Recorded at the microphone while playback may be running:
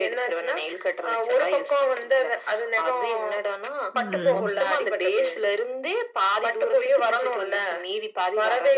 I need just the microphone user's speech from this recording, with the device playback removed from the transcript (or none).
ம்.